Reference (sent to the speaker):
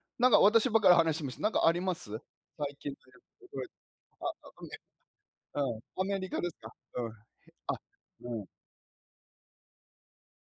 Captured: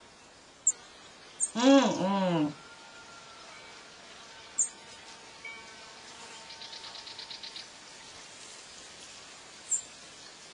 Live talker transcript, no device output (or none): うんうん。